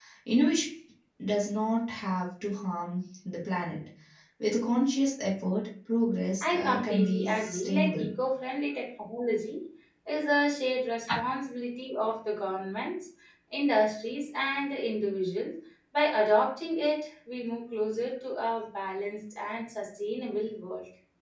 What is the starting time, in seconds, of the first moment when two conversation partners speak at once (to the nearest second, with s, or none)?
6 s